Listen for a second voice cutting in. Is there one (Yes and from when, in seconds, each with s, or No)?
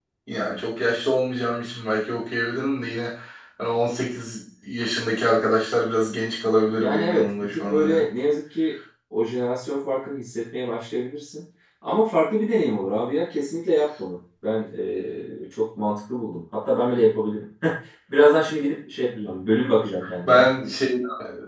Yes, from 6.8 s